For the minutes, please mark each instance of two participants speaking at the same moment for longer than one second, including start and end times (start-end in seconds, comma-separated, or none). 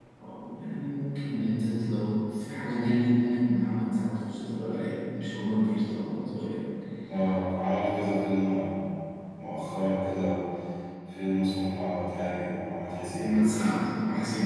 none